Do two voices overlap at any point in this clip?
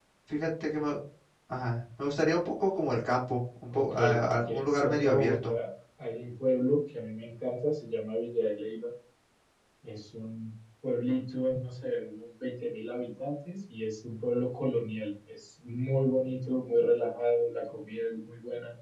Yes, from 3.7 s

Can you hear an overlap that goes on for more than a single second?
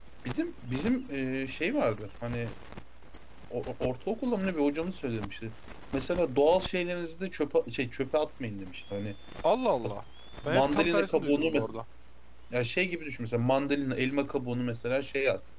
Yes, from 10.4 s

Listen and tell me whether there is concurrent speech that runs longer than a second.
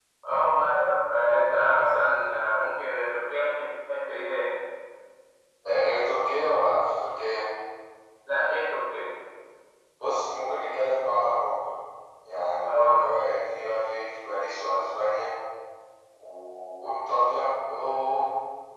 No

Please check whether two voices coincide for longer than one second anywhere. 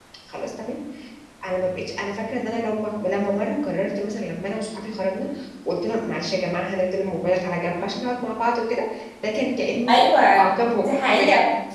Yes, from 9.8 s

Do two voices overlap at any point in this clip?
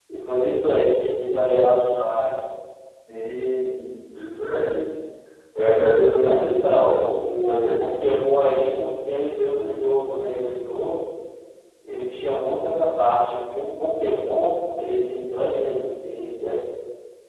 Yes, from 6.2 s

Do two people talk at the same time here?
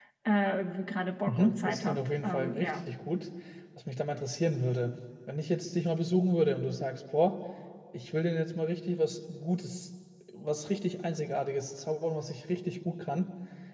Yes, from 1.3 s

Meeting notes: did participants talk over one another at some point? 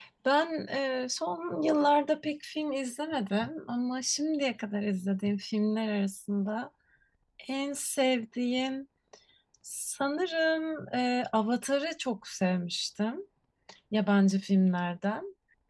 No

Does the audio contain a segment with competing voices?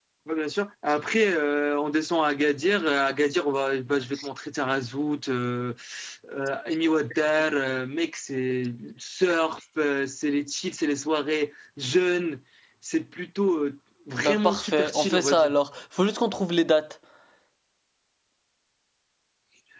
Yes, from 14.2 s

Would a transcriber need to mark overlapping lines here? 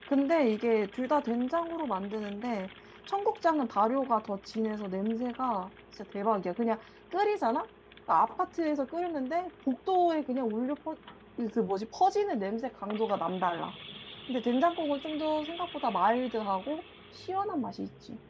No

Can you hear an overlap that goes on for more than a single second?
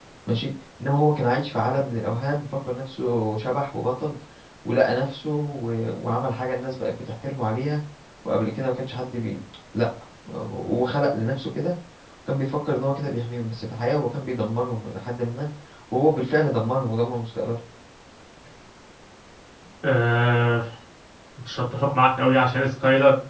No

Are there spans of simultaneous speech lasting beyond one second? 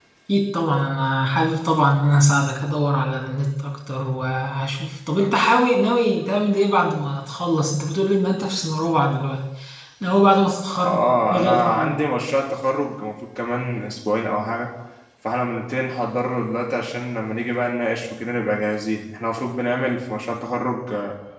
Yes, from 10.7 s

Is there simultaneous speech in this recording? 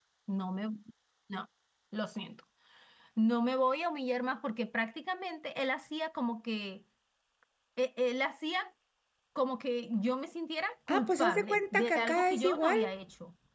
Yes, from 10.9 s

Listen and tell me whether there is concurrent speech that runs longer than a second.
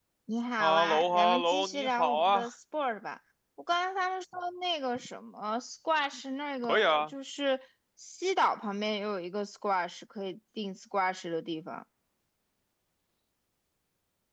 Yes, from 0.6 s

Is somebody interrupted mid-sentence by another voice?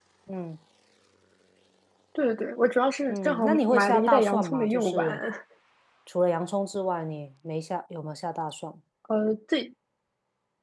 Yes, from 3.1 s

